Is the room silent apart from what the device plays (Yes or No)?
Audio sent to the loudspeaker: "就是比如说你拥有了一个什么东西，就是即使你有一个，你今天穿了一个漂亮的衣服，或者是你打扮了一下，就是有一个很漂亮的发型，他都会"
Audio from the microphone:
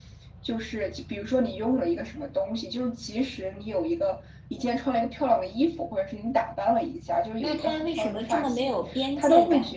No